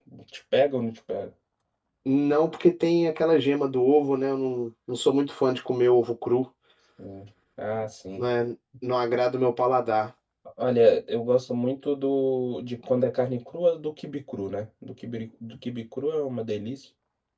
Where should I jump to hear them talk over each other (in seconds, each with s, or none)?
none